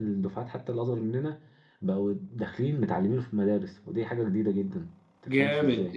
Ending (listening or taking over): taking over